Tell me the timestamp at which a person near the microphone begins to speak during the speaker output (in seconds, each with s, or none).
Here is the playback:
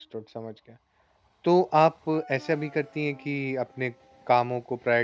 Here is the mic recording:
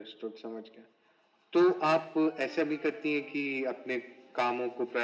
none